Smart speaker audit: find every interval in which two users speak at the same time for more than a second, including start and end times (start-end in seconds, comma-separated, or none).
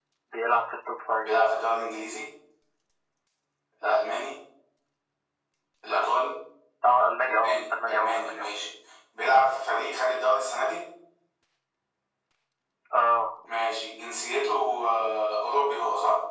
7.3-8.5